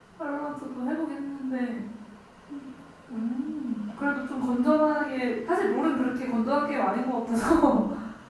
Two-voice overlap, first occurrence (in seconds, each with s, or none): none